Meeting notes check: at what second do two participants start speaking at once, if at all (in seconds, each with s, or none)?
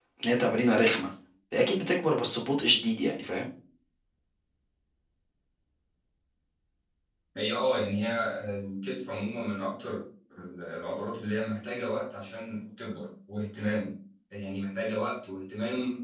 none